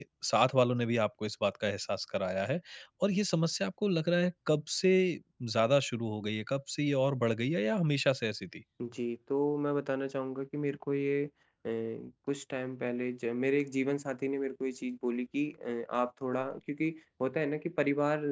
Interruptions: none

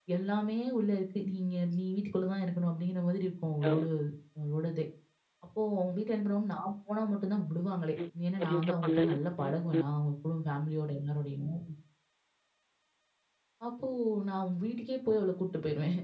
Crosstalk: present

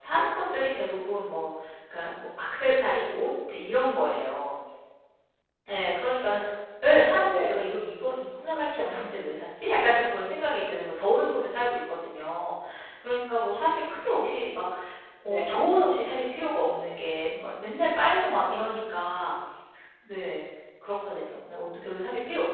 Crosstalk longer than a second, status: none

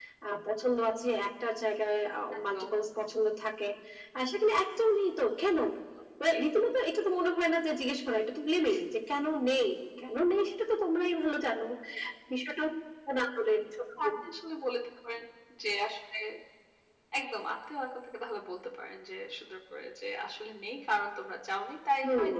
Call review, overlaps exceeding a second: none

